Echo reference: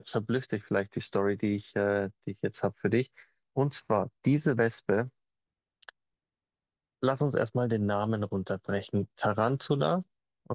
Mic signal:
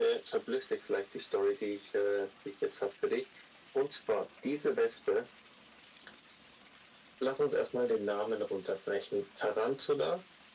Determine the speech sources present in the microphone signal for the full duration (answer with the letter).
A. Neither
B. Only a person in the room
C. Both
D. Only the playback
D